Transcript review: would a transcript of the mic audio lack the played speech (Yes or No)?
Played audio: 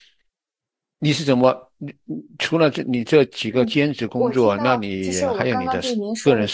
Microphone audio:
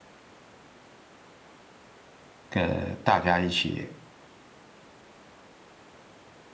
Yes